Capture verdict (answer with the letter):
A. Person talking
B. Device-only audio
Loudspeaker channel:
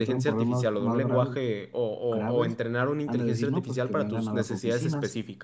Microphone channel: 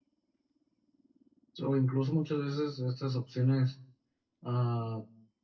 A